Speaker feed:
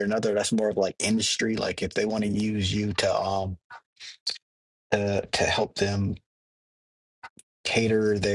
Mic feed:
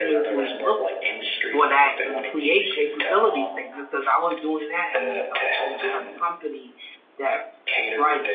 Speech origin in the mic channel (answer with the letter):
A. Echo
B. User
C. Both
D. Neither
C